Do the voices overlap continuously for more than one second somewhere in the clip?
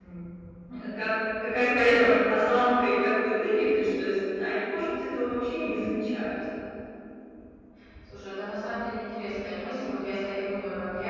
No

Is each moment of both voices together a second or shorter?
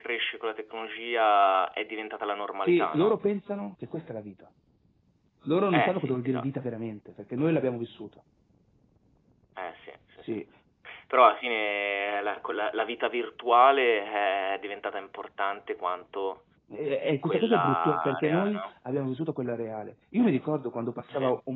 No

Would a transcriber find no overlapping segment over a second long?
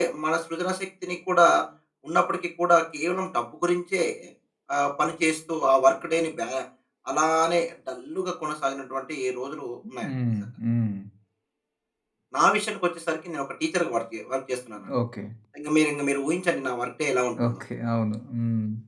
Yes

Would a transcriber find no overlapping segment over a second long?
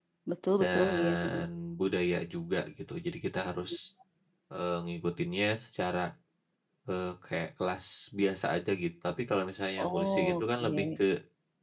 No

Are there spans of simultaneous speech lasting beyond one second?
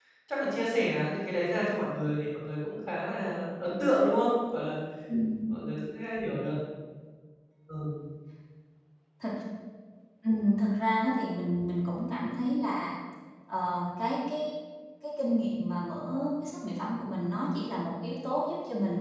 No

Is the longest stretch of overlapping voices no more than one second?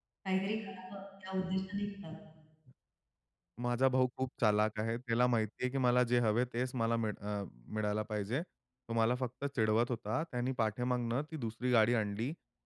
Yes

